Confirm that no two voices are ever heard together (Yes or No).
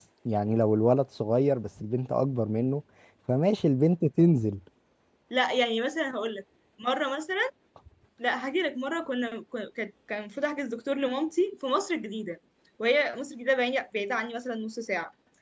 Yes